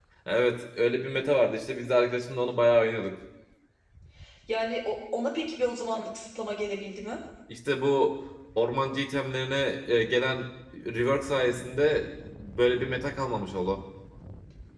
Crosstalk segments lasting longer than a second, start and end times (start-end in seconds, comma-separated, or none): none